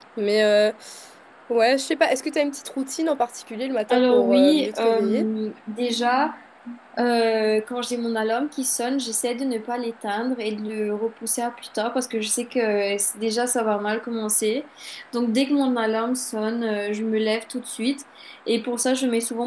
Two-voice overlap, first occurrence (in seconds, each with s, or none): 3.9 s